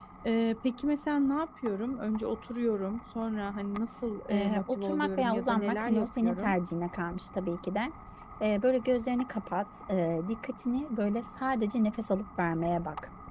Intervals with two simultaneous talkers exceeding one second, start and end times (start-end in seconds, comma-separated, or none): 4.3-6.5